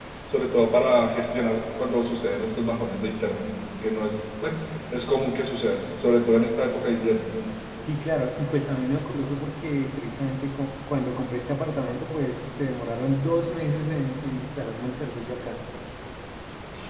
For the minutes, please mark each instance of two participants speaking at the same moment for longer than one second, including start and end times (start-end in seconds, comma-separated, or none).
none